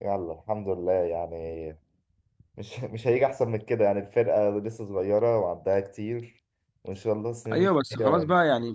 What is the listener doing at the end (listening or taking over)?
taking over